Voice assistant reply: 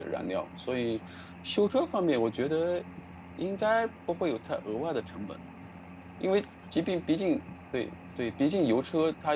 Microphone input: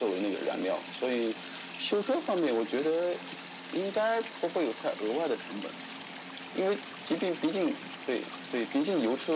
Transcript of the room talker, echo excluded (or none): none